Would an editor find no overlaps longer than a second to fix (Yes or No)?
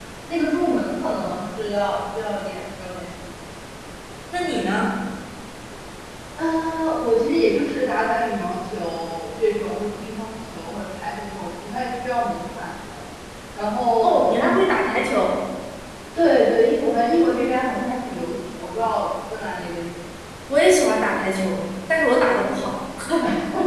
Yes